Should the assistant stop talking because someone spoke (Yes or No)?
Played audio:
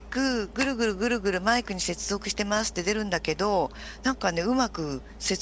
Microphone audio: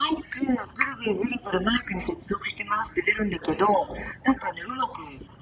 No